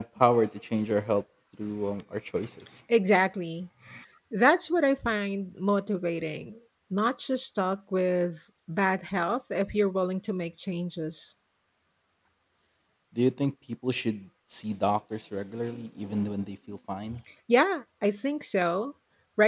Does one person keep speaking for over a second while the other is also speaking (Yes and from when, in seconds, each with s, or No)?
No